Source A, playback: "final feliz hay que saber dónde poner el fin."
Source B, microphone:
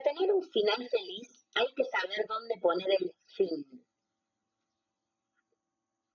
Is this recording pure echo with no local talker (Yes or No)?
Yes